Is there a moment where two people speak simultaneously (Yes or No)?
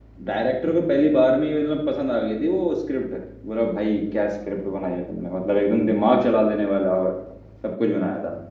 No